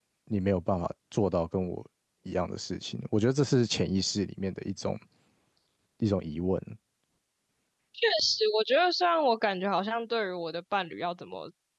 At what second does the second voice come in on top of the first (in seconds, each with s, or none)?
none